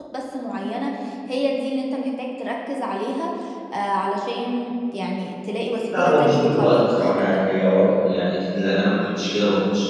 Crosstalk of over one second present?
Yes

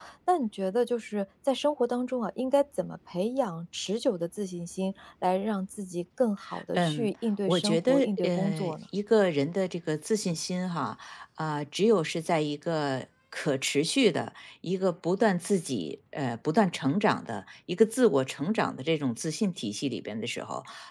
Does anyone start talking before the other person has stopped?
Yes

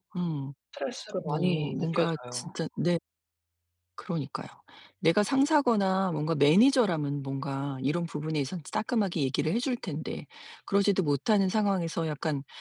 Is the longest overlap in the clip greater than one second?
Yes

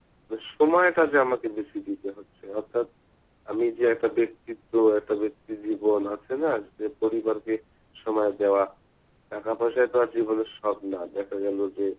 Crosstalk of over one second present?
No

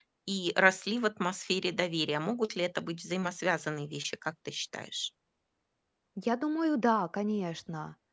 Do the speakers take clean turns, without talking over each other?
Yes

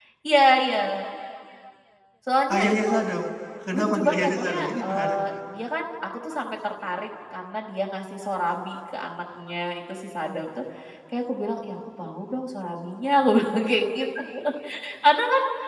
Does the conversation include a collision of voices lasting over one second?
Yes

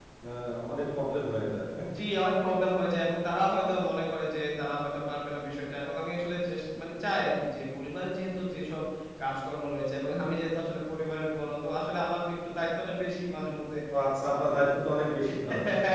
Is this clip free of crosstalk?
Yes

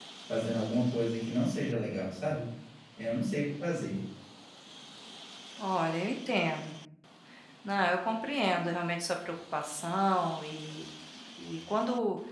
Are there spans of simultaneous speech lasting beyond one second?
No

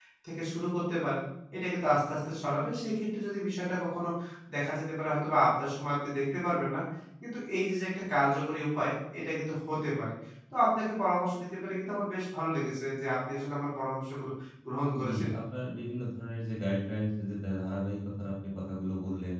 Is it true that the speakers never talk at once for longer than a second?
Yes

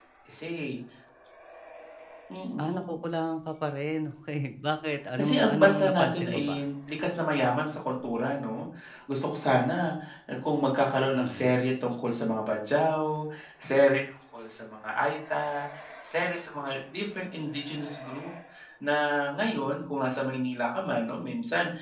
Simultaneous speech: Yes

